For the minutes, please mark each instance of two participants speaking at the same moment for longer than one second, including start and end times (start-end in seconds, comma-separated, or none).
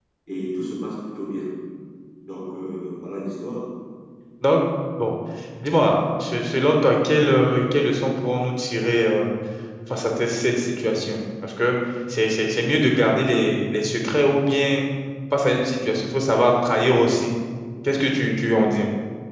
none